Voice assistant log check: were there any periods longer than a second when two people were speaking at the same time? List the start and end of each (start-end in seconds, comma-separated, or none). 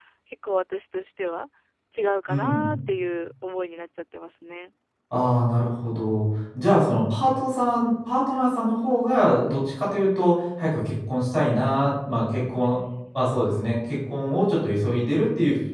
none